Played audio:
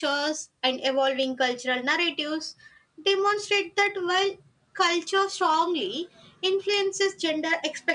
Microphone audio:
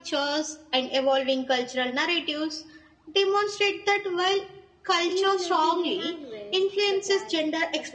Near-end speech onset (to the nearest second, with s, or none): 5 s